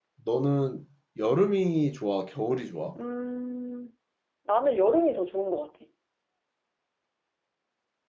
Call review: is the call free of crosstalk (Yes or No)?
Yes